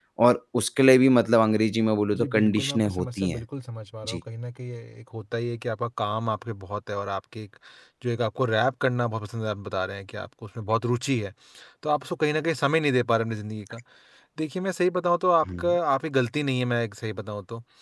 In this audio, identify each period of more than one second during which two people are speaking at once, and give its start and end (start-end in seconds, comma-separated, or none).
2.1-3.4